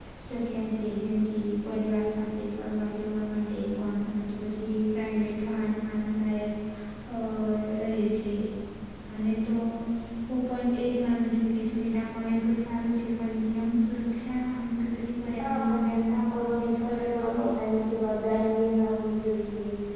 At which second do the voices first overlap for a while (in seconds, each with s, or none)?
15.4 s